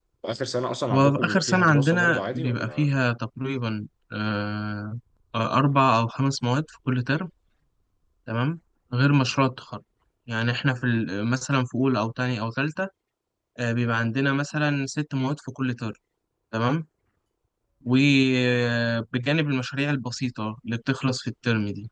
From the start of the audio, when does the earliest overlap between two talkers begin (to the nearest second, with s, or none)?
1 s